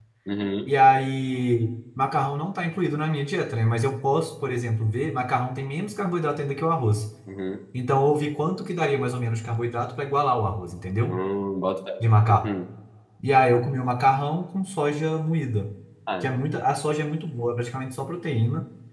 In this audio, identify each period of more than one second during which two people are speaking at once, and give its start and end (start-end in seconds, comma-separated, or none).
none